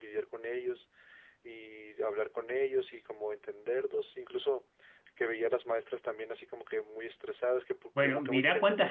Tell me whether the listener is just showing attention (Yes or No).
No